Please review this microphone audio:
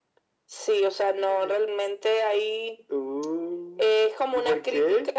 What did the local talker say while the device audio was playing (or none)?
none